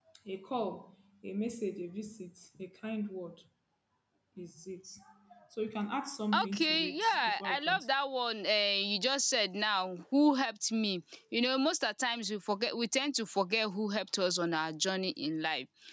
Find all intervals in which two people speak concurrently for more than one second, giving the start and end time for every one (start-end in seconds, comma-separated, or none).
6.4-7.9